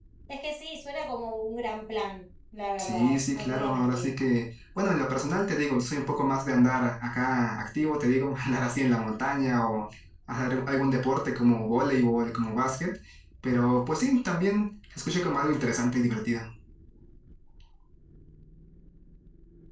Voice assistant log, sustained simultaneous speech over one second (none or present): present